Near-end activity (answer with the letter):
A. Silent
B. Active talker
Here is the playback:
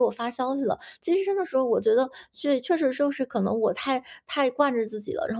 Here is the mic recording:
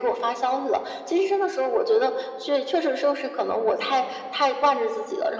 A